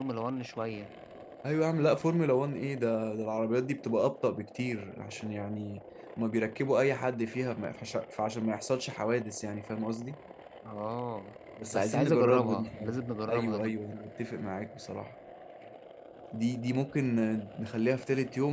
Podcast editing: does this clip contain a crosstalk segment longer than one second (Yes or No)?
Yes